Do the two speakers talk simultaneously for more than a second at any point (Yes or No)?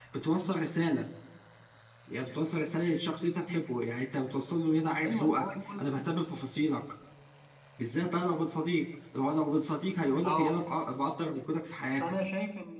No